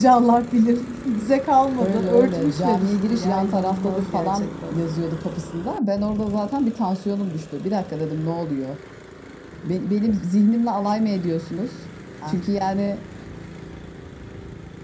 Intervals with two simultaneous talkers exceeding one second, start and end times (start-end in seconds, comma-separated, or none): 1.8-4.8